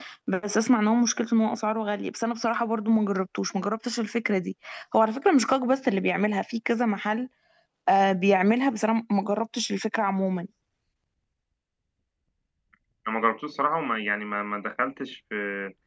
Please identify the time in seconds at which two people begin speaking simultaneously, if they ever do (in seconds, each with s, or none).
none